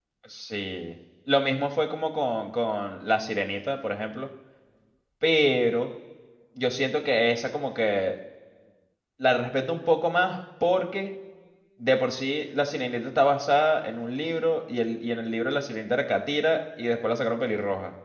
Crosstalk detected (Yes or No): No